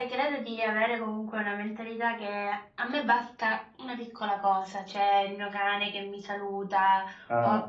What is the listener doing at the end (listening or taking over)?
listening